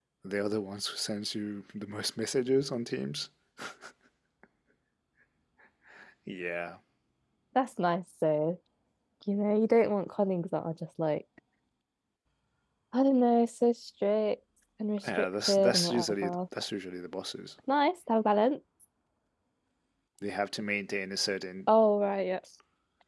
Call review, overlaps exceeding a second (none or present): present